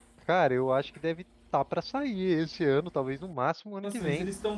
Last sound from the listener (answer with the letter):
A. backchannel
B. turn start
B